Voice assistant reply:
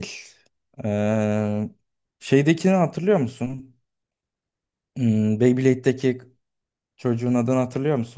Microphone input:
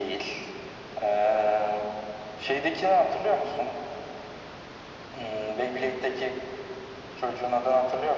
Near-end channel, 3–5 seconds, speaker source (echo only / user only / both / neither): echo only